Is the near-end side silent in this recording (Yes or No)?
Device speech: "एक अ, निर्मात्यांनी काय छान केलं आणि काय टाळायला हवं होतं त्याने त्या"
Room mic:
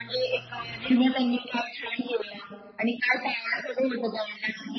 Yes